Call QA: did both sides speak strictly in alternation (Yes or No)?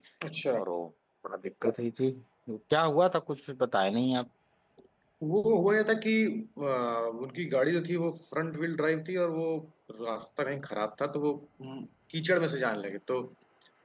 Yes